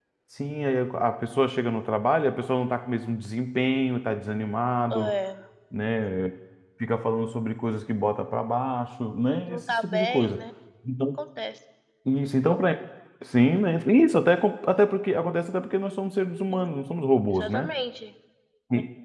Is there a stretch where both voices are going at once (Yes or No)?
Yes